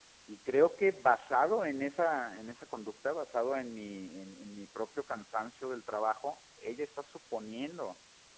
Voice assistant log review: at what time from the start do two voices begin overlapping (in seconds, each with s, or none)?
none